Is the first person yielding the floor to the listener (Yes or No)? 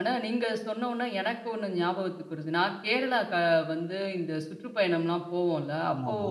No